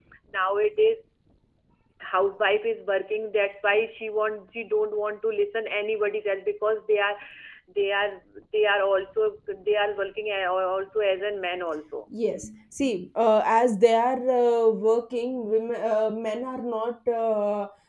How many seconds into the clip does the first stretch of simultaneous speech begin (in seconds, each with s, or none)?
none